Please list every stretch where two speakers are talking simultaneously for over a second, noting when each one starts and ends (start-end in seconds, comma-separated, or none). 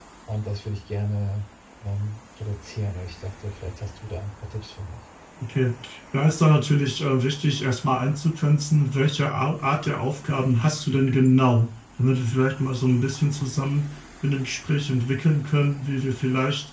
none